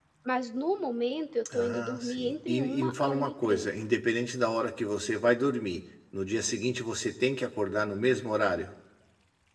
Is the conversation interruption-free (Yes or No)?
No